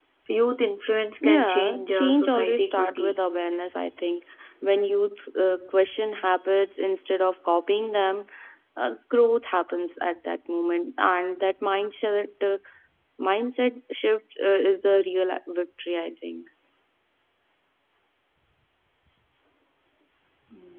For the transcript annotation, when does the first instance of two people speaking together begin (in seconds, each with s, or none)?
1.2 s